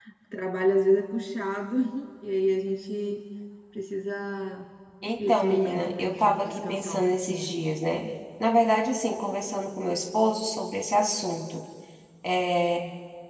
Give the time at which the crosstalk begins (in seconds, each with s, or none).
5.3 s